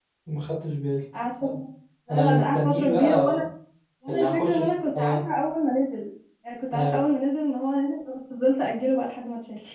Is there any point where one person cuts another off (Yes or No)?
Yes